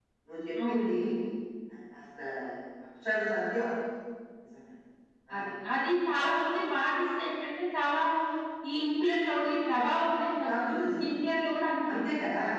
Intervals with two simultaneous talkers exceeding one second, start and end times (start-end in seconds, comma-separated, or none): none